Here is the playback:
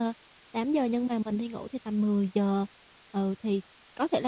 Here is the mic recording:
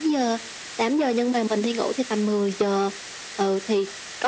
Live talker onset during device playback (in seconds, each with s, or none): none